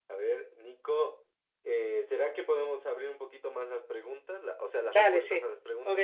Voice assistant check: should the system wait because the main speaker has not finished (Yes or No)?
No